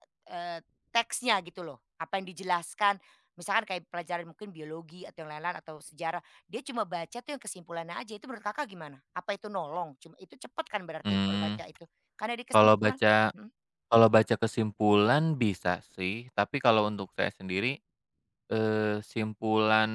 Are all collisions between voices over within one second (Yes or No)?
Yes